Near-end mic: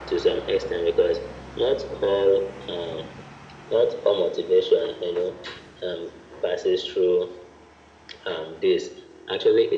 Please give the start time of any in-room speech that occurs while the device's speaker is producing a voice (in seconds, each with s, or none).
none